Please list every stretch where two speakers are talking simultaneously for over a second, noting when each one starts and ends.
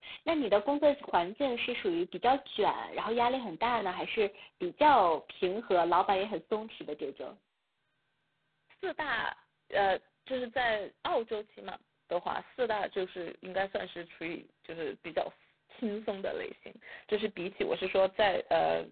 none

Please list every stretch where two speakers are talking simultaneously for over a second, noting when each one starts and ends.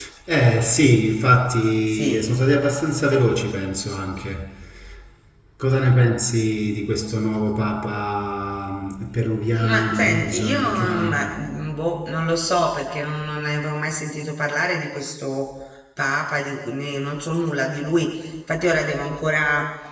9.6-11.4

